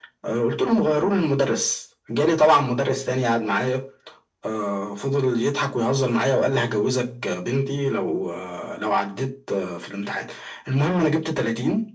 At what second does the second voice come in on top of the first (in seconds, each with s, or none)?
none